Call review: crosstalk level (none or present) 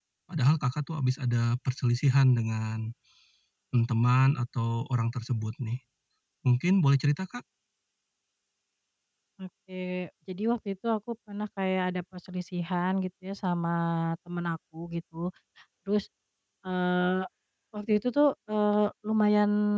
none